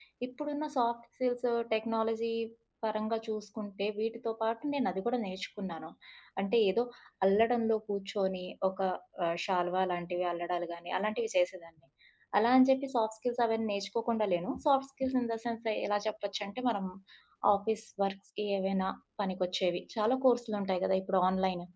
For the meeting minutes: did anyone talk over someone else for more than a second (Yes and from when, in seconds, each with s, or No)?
No